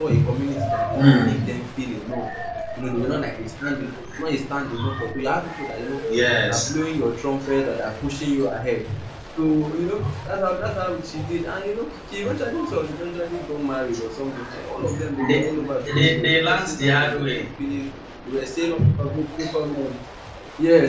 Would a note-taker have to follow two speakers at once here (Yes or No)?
Yes